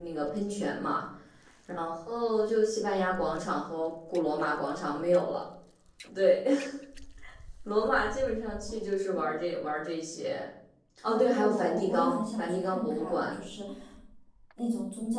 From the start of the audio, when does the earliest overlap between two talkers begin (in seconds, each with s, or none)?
11.1 s